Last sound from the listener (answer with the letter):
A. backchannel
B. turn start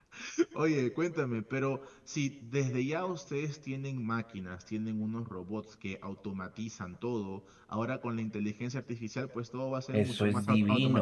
B